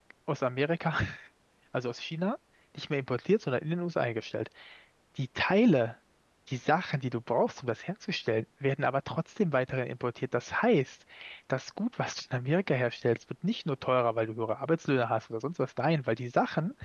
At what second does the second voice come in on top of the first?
none

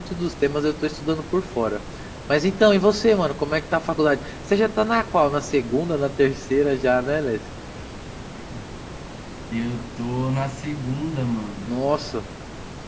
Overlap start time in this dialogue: none

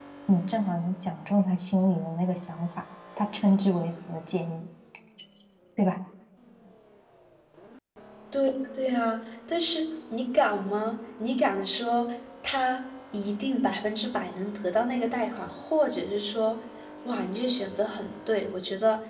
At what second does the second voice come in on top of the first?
none

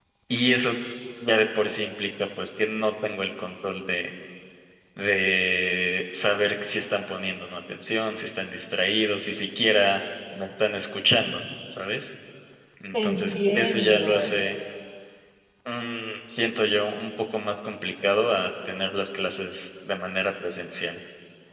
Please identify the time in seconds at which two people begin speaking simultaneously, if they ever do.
12.9 s

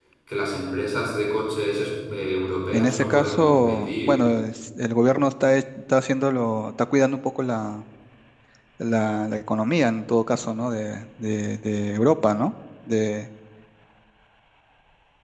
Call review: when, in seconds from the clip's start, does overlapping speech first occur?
2.7 s

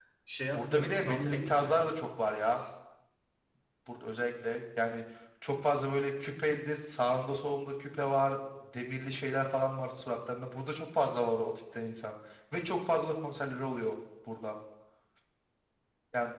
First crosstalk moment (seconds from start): 0.5 s

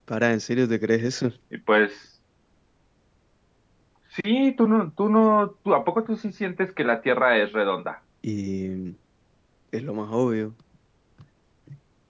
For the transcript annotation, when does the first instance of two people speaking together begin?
none

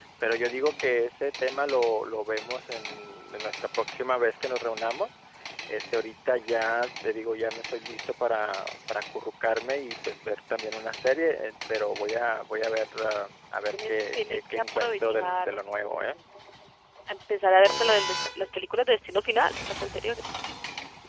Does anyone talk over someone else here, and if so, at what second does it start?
13.7 s

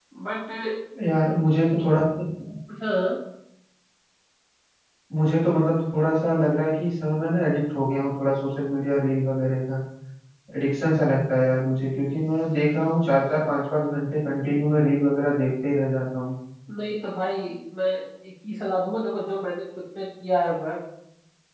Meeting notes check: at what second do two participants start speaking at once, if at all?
none

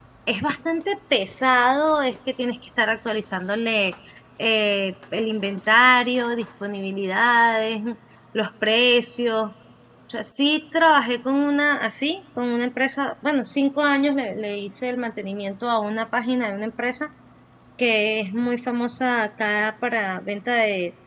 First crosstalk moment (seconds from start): none

